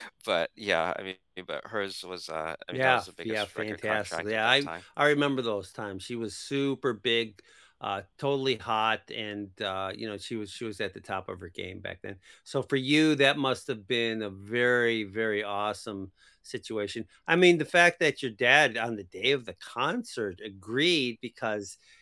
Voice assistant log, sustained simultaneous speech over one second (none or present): present